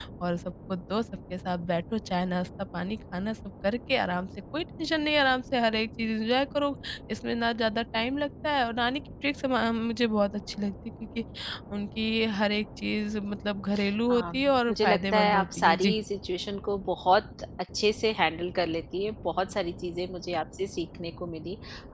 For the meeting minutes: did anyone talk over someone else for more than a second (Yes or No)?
Yes